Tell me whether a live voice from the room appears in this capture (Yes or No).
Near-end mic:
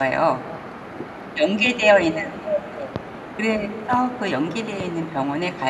Yes